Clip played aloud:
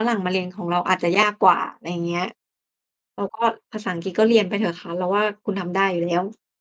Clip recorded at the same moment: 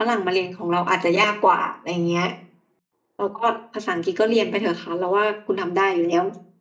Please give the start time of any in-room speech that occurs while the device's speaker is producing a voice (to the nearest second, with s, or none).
none